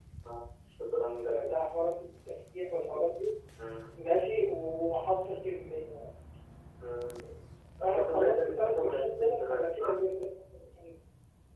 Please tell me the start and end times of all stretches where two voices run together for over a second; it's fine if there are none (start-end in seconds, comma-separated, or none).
7.8-9.9